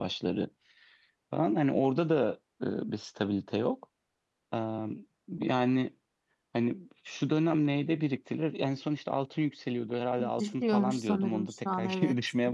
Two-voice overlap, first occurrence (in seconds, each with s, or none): 10.2 s